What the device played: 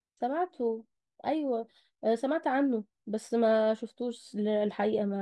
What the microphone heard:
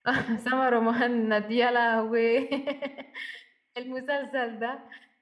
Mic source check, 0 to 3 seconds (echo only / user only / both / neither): user only